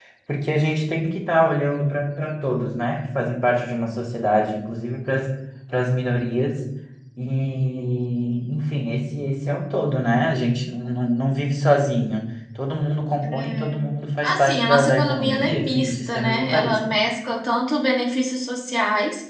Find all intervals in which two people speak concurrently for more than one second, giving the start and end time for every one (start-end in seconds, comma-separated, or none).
14.2-16.8